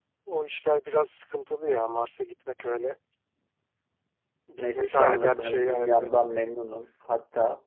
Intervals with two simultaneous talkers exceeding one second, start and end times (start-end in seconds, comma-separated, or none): 4.8-6.1